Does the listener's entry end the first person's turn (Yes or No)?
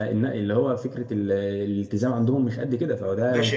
Yes